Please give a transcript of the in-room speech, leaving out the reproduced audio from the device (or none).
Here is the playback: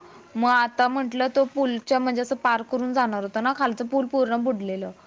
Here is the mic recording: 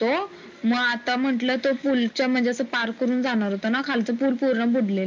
none